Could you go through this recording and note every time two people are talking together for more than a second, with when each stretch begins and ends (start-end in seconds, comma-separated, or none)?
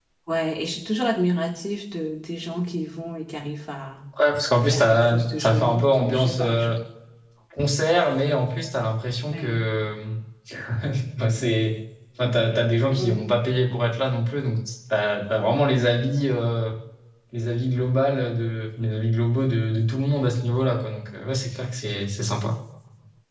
4.5-6.7